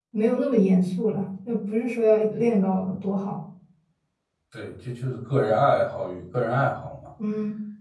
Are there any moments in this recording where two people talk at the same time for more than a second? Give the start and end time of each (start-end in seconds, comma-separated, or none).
none